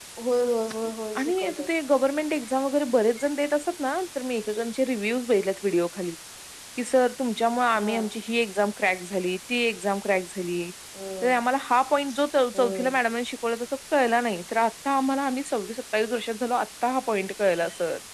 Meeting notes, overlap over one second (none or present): none